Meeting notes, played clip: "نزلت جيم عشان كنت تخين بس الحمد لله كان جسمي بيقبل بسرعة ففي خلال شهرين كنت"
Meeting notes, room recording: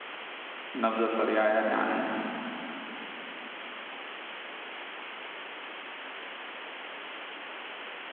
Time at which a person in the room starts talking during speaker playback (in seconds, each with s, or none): 0.7 s